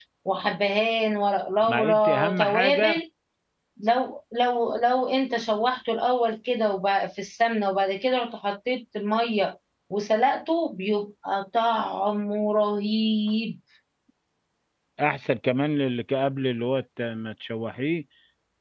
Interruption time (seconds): 1.6 s

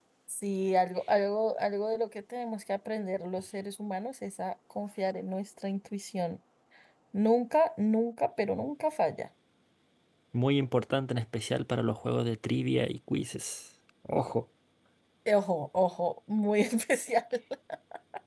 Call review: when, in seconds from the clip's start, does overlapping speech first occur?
none

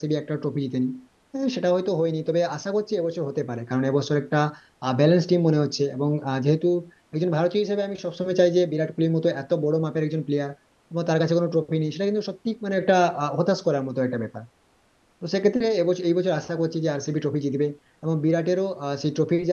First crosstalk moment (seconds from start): none

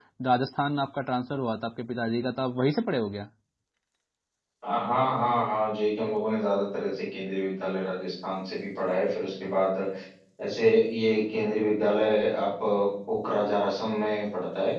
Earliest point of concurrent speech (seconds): none

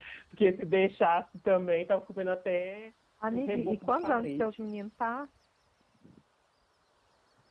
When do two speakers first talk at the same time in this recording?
3.3 s

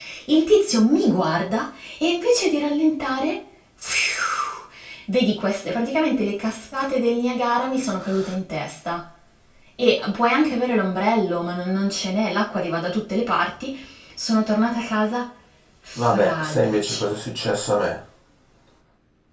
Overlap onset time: 16.0 s

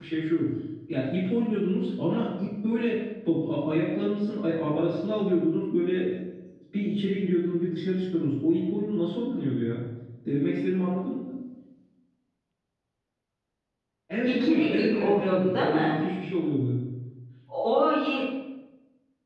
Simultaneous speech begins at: 14.2 s

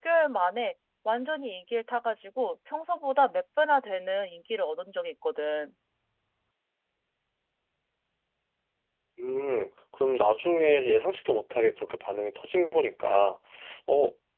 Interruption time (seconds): none

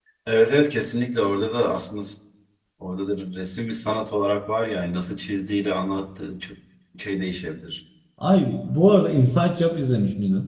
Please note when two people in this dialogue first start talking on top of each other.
none

